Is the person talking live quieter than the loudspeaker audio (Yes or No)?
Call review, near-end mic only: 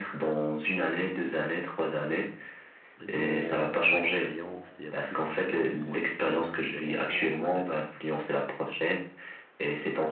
Yes